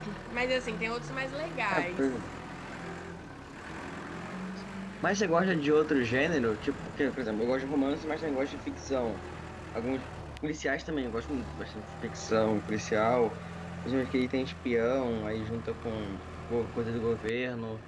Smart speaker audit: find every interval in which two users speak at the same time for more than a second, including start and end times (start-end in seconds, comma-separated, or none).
none